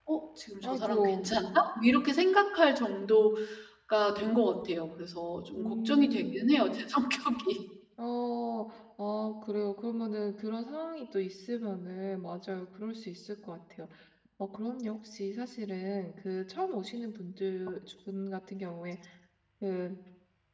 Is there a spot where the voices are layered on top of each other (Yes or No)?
Yes